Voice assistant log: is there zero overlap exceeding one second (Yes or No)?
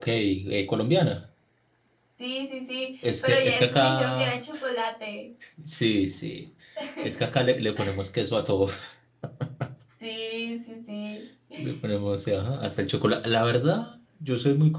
No